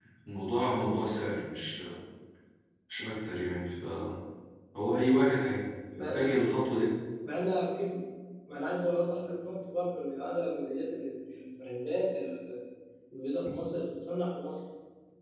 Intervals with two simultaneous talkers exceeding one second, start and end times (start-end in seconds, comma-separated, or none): none